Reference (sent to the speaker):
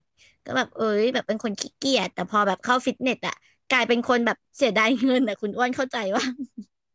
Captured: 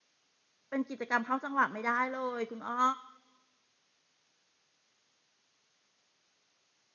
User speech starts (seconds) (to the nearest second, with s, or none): 1 s